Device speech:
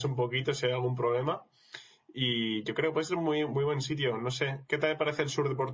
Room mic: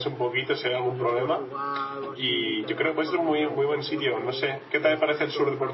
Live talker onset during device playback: 1 s

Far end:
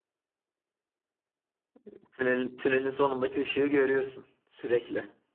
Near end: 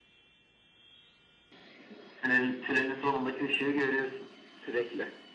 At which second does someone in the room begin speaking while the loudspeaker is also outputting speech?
none

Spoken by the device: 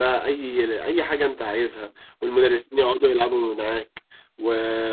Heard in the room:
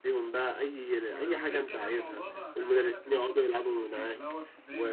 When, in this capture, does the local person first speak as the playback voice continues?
1 s

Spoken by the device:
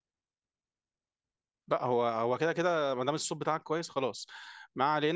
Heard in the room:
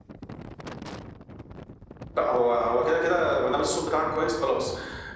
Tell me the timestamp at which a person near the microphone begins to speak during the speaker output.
none

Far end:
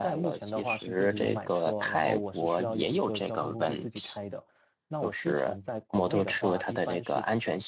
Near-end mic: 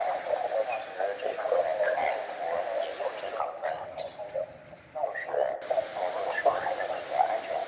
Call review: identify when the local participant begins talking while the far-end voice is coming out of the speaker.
none

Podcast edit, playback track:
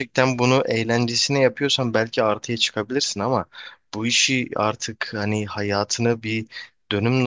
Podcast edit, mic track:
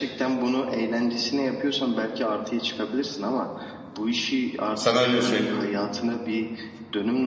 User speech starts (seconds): 5 s

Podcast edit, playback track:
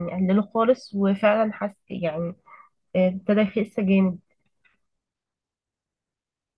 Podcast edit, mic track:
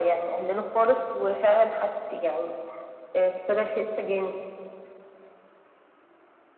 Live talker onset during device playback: none

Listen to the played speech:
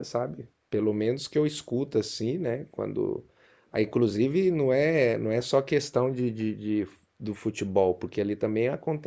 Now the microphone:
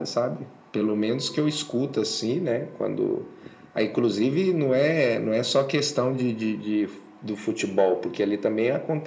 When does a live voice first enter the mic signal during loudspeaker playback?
none

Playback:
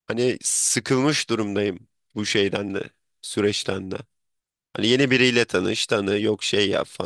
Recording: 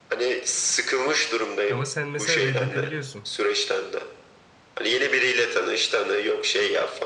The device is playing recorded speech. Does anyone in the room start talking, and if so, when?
2 s

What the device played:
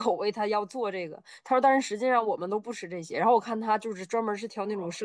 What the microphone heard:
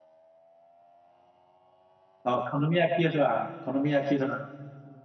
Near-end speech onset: 2 s

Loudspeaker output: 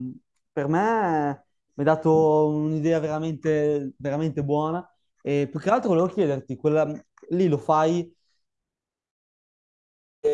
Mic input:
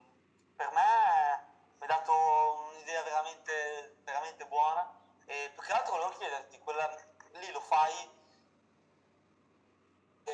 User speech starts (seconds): none

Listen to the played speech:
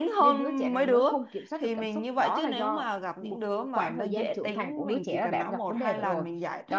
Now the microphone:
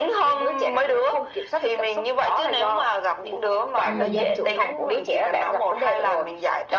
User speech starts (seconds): 4 s

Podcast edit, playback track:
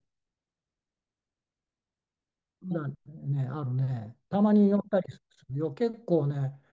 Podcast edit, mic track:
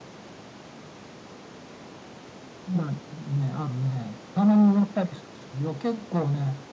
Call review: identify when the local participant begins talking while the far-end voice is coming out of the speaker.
none

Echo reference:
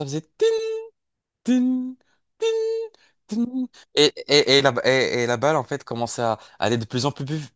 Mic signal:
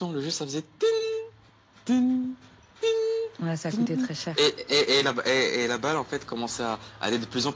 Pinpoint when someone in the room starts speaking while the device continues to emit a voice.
3 s

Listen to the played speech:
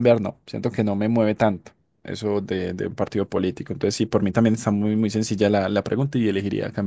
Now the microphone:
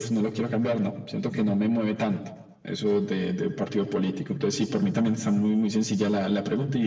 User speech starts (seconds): none

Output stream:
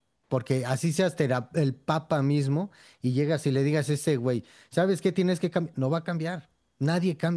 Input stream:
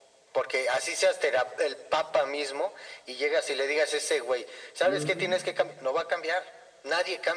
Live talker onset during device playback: 5 s

